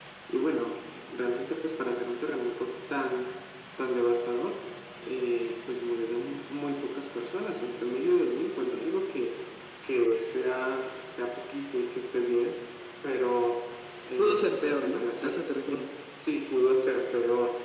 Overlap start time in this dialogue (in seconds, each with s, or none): 14.2 s